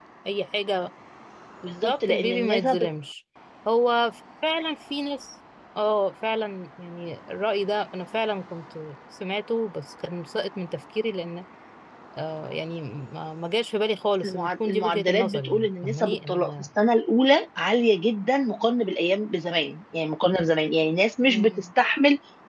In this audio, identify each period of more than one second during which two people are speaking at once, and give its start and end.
1.7-2.9, 14.2-16.5

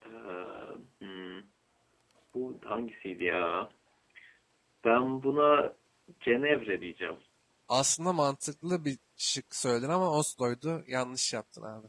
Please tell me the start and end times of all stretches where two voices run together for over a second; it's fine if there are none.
none

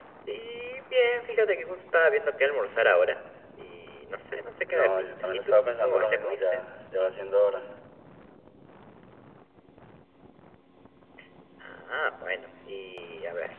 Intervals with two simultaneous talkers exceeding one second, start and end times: 4.7-6.6

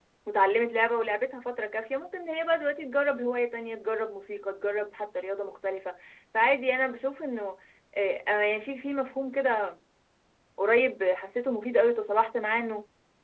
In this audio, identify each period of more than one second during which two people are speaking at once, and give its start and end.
none

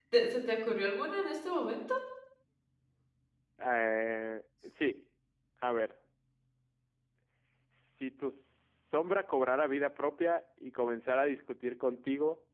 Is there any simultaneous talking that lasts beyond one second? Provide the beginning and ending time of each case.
none

